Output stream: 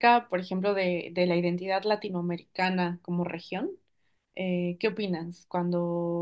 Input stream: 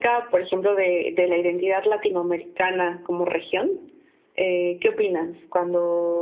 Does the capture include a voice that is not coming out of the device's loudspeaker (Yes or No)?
No